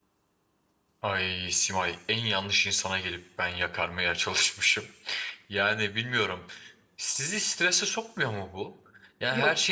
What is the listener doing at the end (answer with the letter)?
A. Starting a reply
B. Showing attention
B